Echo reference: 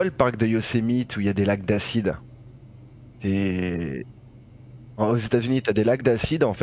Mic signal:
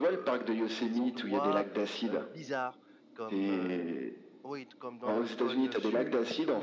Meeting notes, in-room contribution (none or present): present